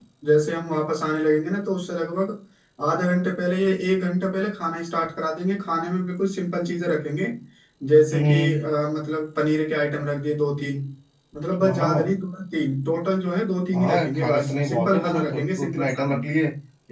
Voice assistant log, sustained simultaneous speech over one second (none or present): present